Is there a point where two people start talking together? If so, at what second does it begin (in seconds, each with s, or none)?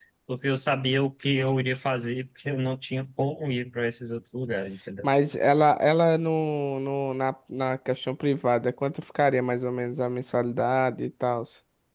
none